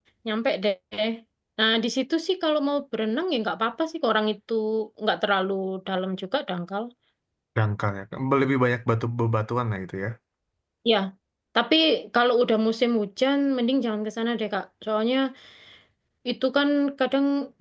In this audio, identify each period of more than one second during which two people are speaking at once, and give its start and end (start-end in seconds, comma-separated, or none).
none